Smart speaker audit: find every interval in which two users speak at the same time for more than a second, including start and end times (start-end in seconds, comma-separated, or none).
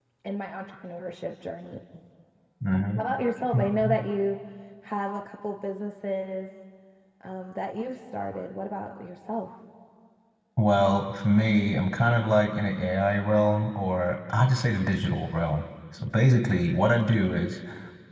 none